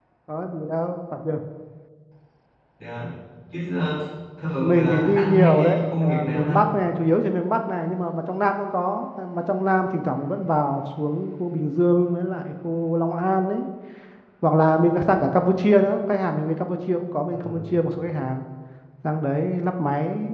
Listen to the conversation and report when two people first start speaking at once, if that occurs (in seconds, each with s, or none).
4.6 s